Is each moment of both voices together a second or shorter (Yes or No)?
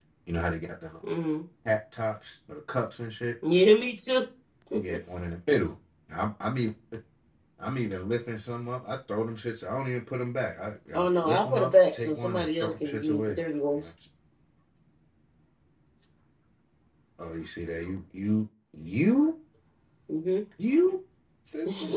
No